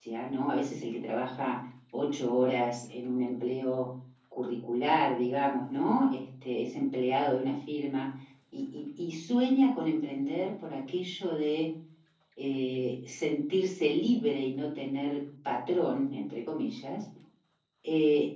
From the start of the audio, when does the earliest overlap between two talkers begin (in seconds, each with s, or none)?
none